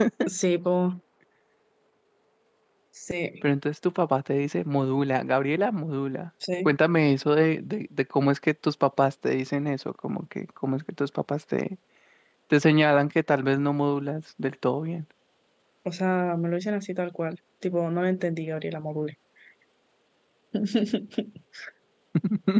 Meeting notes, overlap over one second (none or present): none